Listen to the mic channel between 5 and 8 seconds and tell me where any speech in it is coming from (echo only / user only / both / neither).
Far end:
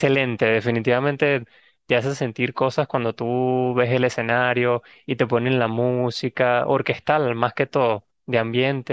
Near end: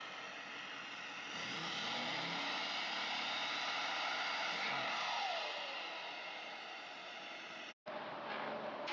neither